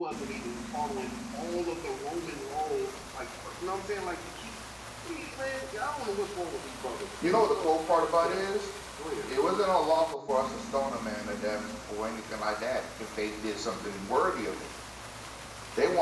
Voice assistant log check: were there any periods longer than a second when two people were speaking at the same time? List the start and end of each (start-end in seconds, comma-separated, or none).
7.2-8.4